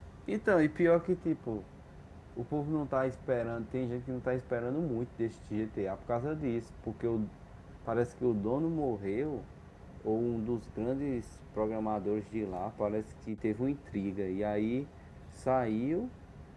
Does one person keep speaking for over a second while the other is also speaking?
No

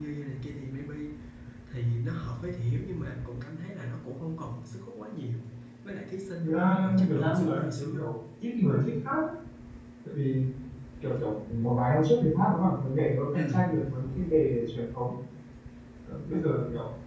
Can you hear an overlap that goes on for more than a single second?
Yes, from 6.4 s

